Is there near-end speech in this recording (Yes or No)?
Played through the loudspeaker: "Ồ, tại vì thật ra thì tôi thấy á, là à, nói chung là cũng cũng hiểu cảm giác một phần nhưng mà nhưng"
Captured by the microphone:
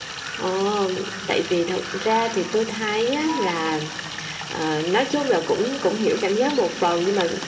No